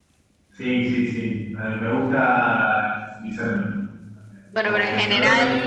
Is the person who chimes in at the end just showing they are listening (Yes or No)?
No